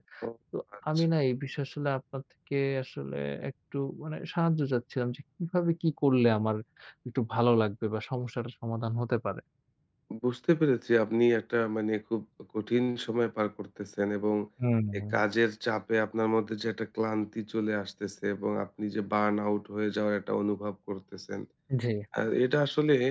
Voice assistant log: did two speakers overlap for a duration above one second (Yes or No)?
No